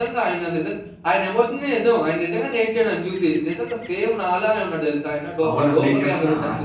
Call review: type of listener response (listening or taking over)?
taking over